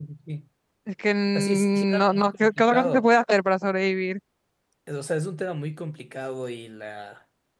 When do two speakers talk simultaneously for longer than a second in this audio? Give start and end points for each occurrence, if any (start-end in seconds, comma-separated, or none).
1.4-3.1